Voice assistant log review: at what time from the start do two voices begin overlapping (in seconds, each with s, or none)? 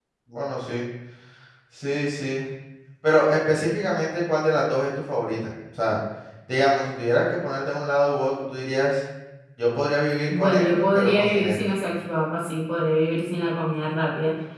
10.3 s